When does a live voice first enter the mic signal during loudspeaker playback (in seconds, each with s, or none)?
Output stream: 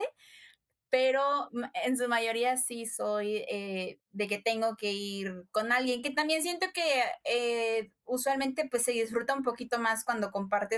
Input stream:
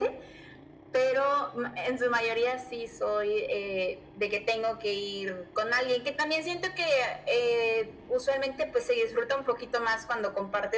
none